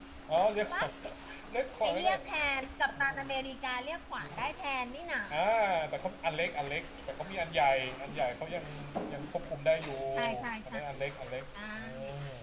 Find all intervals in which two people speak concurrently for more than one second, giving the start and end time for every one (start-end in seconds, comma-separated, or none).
none